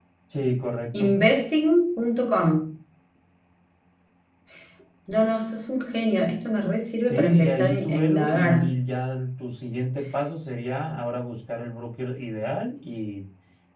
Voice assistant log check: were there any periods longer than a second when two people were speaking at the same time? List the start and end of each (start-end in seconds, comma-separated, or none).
7.0-8.8